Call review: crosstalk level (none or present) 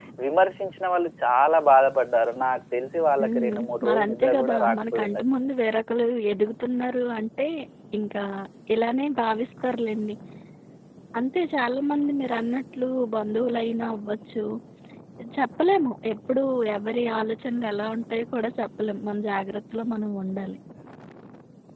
present